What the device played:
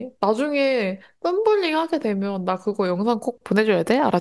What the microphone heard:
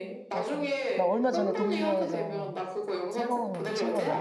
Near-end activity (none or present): present